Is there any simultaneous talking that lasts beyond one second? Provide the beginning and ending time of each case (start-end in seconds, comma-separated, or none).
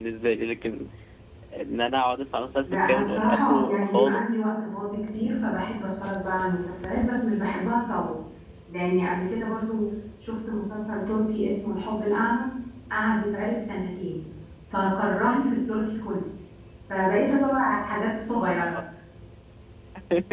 2.6-4.4